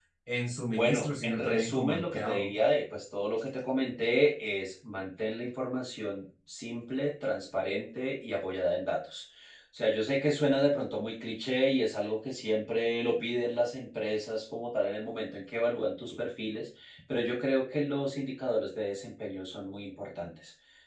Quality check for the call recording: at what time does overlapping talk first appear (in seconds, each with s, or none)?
0.7 s